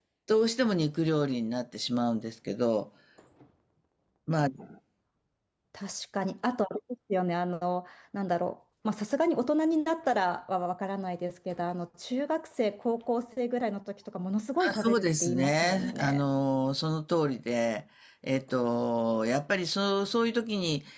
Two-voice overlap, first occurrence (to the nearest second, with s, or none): 15 s